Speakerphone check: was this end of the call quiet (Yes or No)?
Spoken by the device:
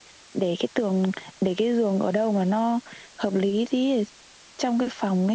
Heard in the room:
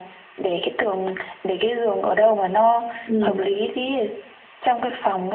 No